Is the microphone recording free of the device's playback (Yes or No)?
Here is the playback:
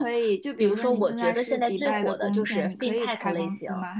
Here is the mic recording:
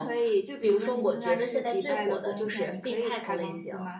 No